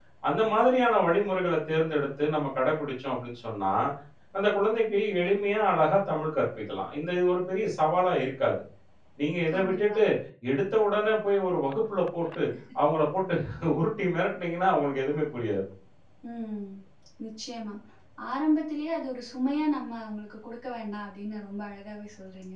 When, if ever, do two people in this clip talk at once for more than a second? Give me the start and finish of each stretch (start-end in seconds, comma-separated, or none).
none